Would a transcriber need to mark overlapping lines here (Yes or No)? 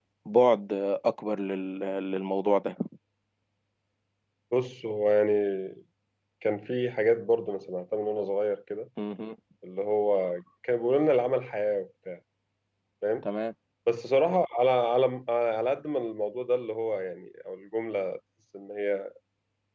No